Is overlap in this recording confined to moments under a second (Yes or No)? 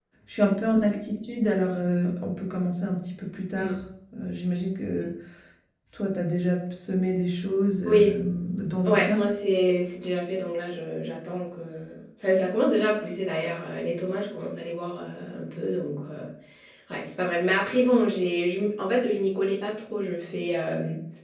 Yes